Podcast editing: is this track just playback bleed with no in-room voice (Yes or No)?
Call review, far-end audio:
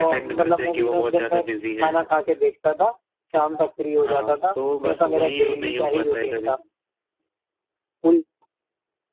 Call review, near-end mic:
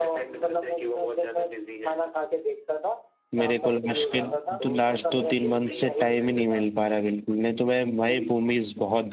No